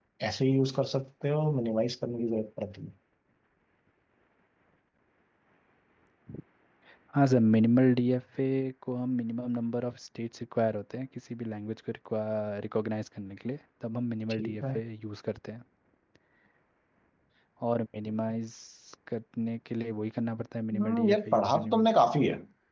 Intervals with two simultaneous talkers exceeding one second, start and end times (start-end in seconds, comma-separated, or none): 20.7-21.9